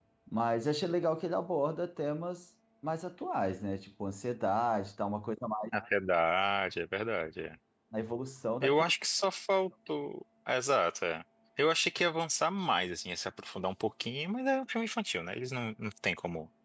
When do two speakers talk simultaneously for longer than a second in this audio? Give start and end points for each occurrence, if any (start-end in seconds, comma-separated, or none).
none